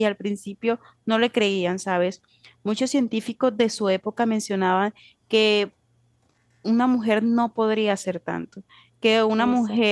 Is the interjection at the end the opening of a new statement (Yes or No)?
No